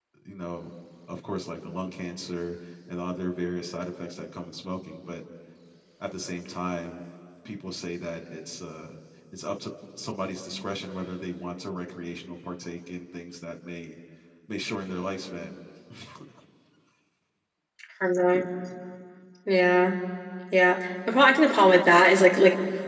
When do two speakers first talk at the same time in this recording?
none

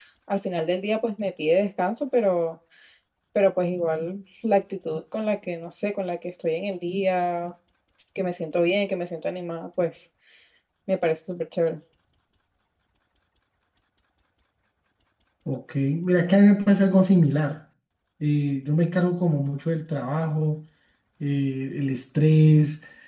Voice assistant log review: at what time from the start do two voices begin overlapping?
none

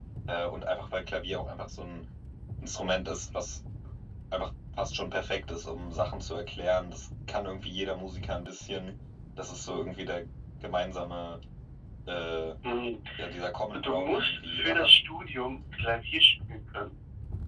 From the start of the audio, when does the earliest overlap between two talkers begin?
13.7 s

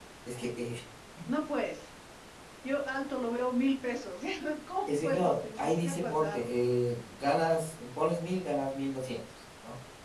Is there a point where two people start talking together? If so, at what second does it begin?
5.0 s

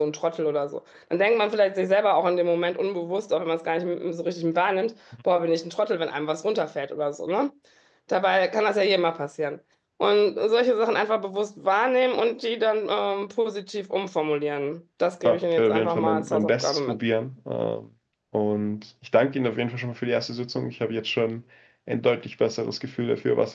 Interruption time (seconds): 15.2 s

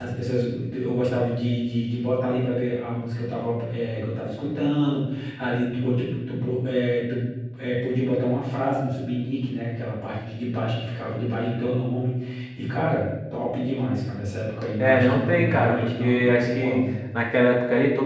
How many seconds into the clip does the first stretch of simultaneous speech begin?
14.8 s

